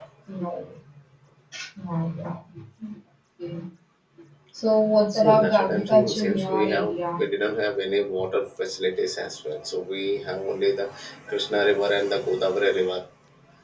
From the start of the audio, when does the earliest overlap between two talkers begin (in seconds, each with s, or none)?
5.1 s